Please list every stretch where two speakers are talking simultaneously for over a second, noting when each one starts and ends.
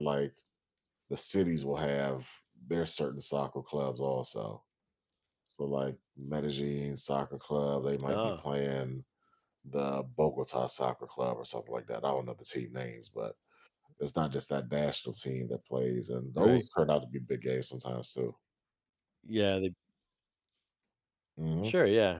none

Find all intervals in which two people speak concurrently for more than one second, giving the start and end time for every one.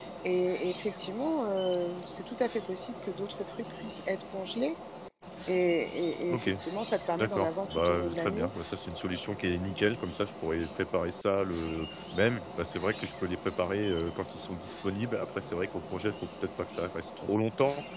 7.2-8.5

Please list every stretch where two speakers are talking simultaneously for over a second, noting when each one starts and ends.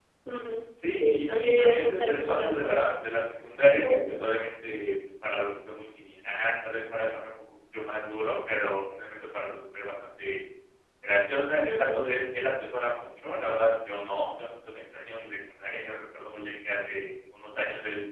1.0-2.8

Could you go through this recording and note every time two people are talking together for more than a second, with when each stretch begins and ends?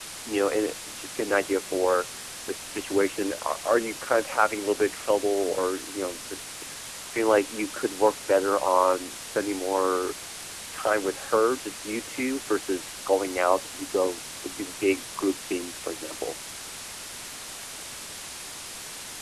none

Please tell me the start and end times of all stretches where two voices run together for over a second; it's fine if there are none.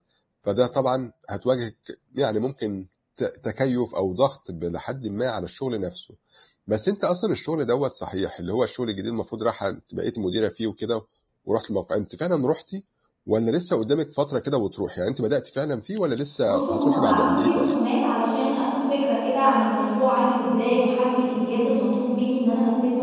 16.5-17.8

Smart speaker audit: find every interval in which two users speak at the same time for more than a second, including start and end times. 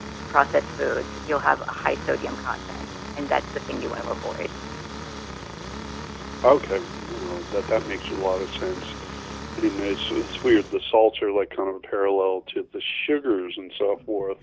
none

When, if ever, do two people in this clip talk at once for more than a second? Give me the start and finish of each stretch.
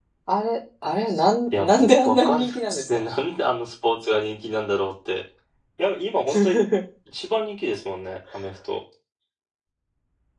1.6-2.9

